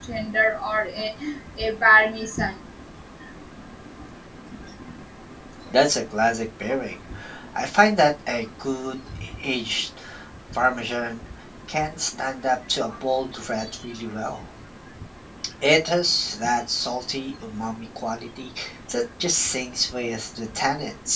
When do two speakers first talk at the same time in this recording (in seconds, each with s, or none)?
none